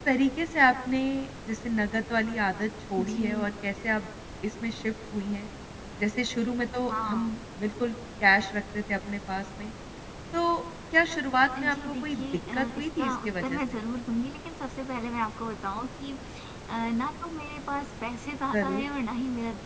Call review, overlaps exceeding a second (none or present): present